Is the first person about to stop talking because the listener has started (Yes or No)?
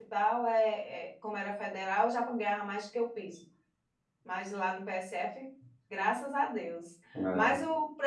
No